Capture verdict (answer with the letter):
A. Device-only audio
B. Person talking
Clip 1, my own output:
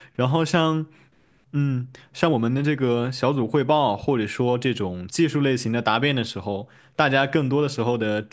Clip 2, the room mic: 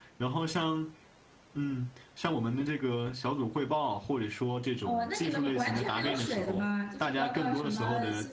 B